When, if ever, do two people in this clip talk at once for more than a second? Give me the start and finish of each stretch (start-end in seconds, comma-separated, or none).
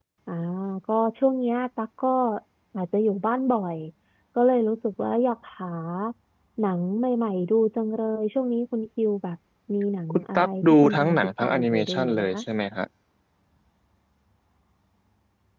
10.1-12.4